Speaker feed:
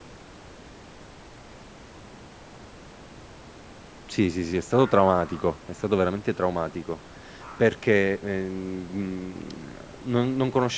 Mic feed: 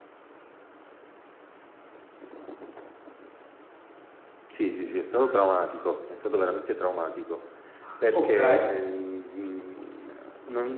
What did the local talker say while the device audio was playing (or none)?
Okay.